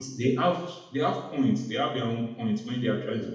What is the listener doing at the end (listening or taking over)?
listening